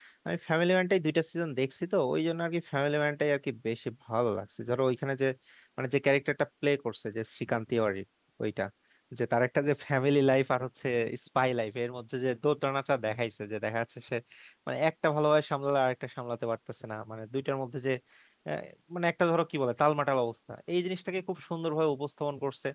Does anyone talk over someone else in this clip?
No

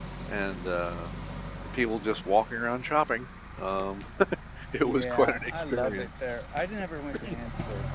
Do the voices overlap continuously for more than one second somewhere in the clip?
Yes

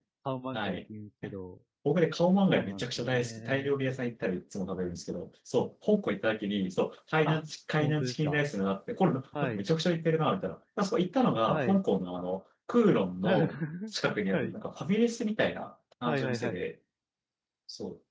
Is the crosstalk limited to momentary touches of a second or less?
No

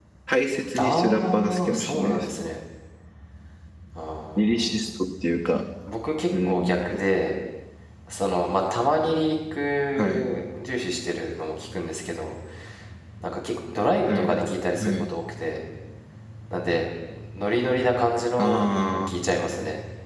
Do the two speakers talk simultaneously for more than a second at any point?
Yes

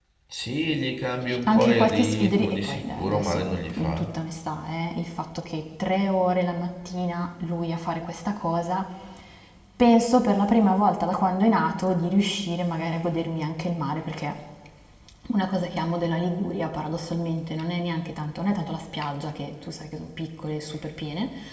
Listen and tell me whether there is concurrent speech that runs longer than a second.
Yes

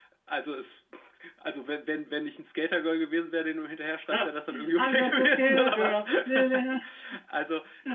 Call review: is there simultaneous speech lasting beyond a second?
Yes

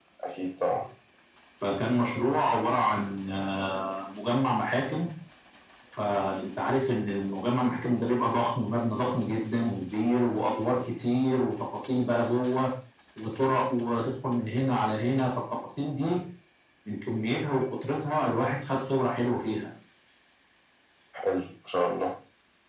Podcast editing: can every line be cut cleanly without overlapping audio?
Yes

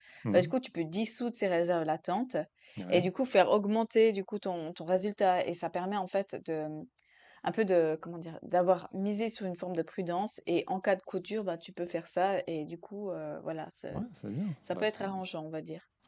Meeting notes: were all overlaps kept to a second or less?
Yes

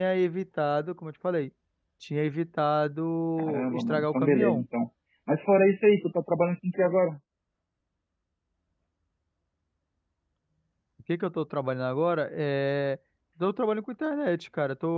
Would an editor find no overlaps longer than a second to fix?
No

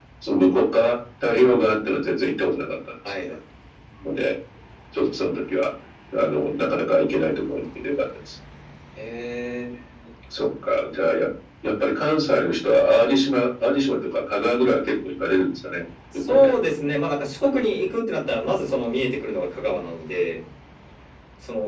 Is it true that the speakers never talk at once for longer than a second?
Yes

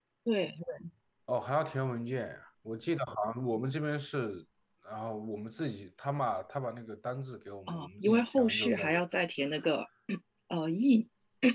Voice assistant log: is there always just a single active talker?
No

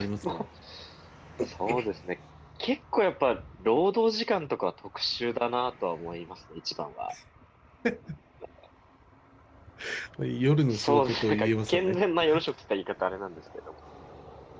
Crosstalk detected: Yes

